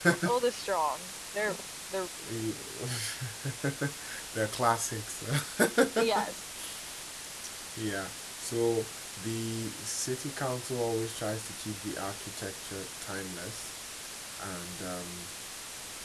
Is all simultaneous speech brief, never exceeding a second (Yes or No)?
Yes